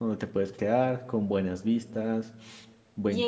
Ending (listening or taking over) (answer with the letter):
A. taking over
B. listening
A